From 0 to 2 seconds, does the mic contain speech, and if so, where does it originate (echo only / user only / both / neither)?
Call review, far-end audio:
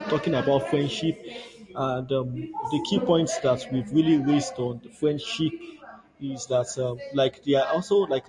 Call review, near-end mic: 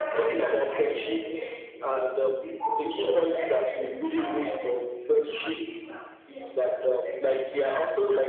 echo only